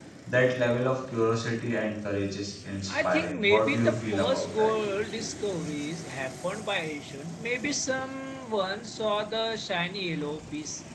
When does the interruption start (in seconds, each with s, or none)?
2.9 s